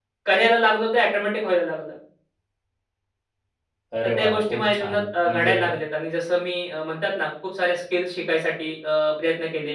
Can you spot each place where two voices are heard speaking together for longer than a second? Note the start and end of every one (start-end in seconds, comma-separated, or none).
4.2-5.5